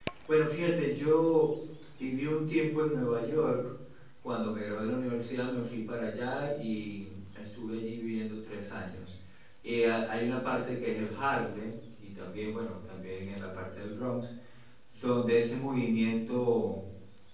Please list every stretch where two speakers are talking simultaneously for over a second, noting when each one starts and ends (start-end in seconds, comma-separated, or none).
none